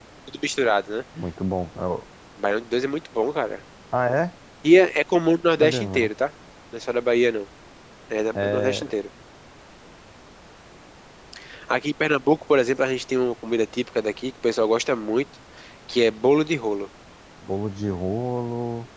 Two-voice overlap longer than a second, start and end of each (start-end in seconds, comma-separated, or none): none